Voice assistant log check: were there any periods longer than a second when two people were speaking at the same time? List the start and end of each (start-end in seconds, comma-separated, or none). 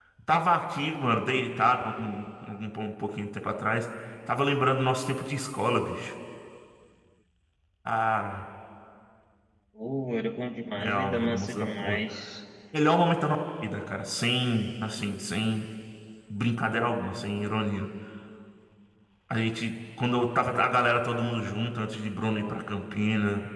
10.8-12.0